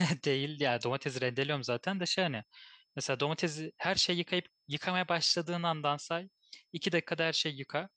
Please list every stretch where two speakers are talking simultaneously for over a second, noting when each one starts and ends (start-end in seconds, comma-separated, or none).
none